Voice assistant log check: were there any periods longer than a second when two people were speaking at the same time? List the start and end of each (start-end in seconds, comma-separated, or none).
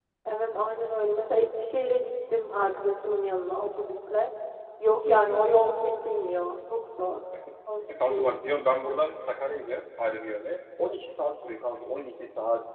none